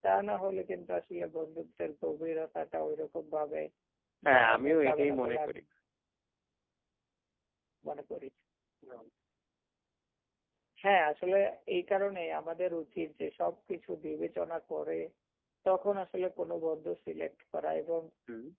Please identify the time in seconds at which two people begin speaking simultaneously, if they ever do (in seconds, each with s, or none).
4.3 s